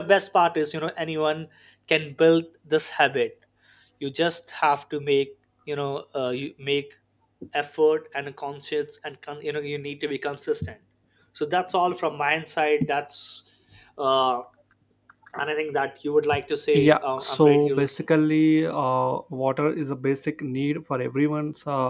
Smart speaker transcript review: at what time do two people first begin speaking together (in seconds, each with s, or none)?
16.7 s